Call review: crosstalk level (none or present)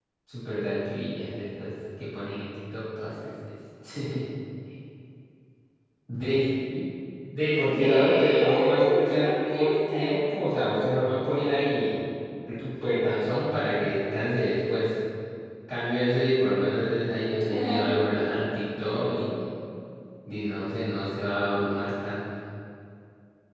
present